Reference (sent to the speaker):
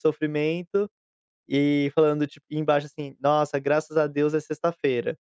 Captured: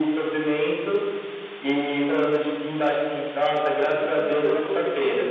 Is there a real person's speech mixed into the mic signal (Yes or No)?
Yes